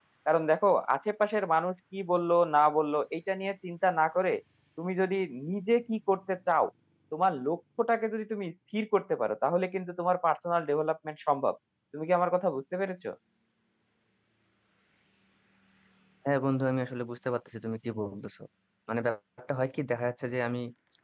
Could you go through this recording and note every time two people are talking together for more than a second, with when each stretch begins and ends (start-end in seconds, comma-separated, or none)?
none